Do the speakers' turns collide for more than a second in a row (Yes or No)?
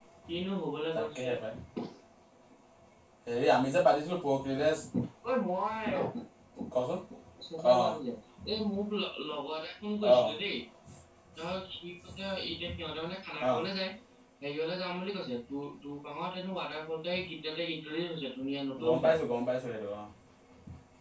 No